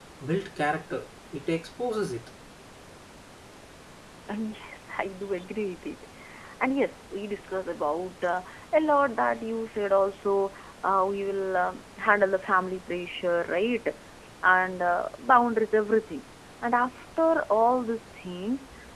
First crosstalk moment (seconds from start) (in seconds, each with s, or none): none